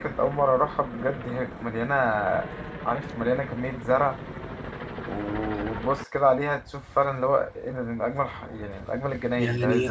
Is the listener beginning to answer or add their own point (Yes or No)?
Yes